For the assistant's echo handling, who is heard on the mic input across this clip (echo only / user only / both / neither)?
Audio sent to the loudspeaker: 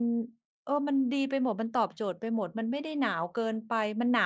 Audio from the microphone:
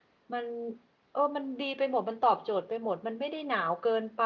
echo only